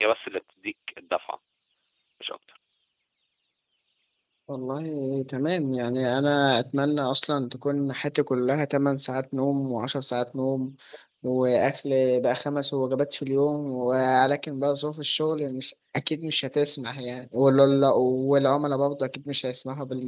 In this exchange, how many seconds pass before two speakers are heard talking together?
none

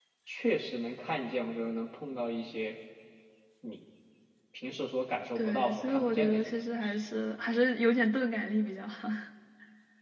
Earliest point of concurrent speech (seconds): 5.3 s

